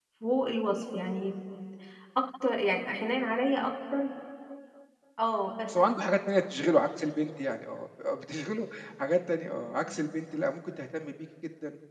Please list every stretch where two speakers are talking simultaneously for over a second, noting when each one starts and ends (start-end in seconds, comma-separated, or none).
none